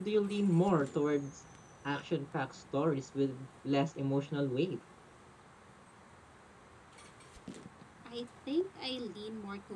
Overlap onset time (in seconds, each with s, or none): none